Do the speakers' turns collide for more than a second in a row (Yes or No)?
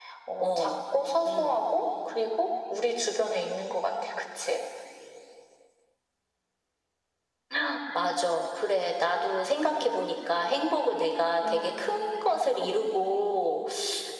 No